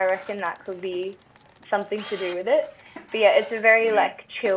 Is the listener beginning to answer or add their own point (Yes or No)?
No